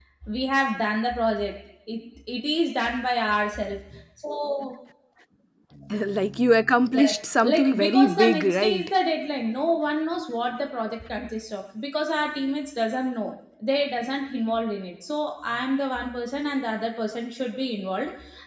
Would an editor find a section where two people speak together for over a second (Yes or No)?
Yes